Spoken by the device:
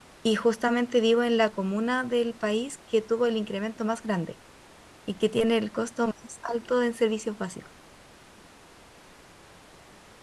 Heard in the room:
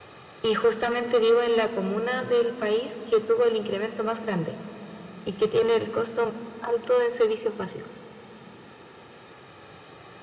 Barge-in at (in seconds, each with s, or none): none